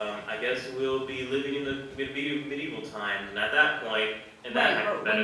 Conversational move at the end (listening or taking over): taking over